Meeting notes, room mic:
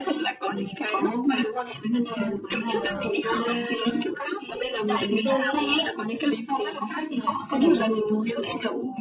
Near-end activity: present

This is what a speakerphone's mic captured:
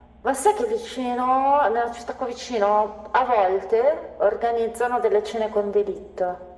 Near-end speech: none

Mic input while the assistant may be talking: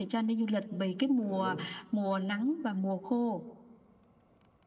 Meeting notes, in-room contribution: present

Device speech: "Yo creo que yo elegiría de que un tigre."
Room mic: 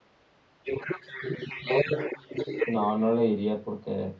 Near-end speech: present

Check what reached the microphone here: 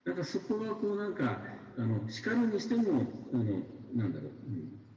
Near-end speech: none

